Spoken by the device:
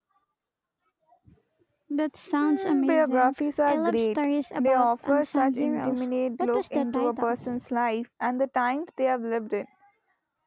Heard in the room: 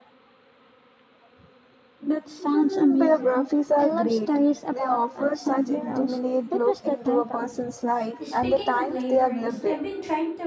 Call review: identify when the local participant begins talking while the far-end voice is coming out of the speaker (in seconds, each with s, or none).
8.2 s